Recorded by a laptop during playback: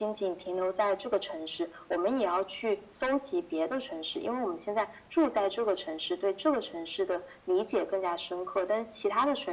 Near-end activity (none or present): none